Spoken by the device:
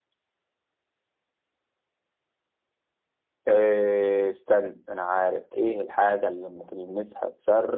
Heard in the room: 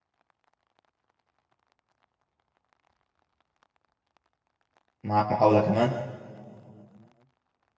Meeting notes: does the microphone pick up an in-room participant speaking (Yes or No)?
Yes